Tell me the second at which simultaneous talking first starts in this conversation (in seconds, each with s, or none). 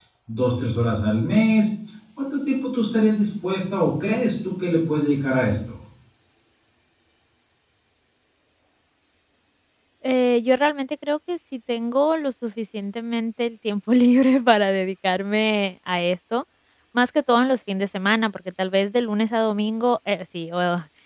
none